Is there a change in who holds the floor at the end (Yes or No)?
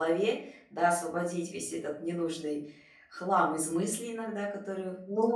Yes